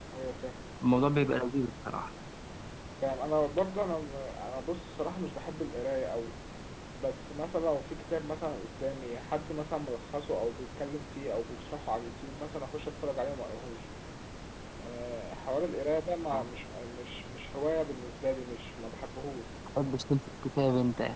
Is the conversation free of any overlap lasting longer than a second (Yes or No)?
Yes